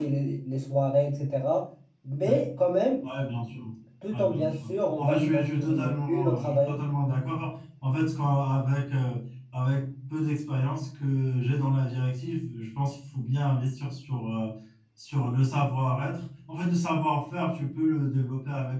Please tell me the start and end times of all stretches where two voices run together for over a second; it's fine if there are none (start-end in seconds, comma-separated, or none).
4.1-6.7